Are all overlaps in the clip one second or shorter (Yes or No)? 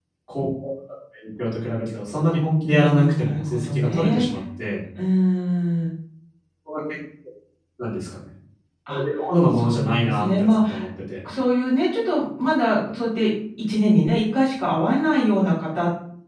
No